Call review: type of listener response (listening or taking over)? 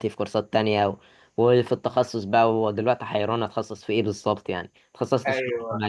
listening